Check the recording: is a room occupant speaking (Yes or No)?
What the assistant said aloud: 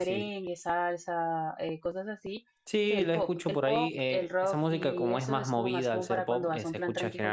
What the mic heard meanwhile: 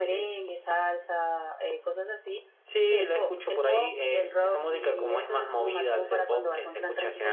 No